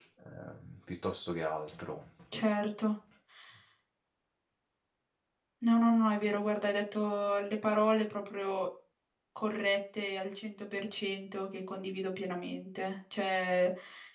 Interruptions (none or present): none